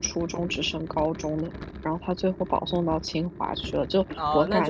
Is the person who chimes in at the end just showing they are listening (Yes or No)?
No